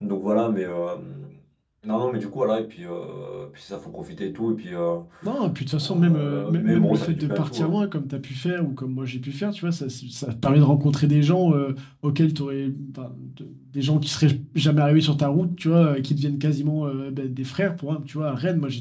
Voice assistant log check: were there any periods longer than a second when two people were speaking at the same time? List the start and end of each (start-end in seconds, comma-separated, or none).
5.8-7.8